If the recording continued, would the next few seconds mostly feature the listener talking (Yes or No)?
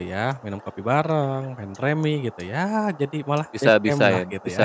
Yes